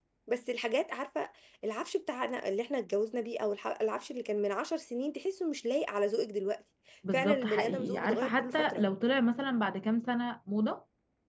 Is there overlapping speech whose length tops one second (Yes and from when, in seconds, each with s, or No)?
Yes, from 7.0 s